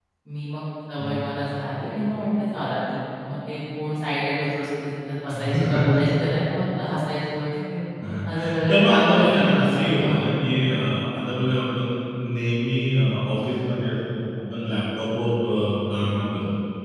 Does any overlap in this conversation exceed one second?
Yes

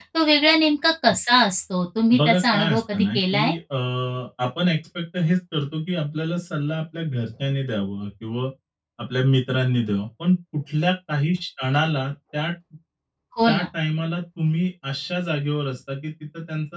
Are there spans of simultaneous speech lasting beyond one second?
Yes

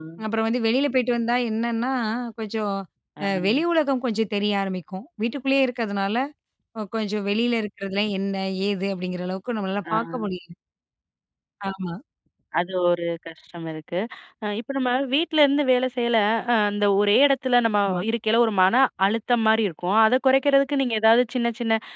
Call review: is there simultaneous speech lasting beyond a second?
No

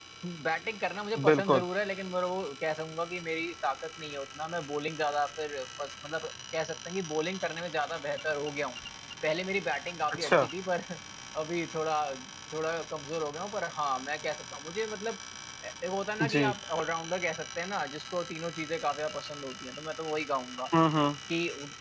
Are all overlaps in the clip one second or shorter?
Yes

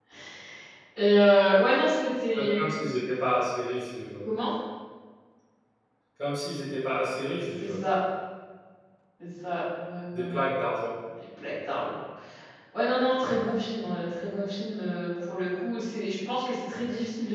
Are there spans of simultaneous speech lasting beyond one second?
No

